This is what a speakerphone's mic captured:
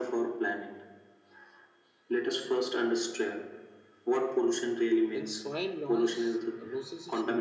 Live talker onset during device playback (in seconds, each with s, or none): 5.1 s